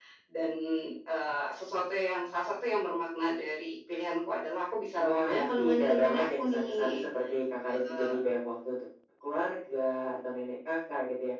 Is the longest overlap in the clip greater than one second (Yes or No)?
Yes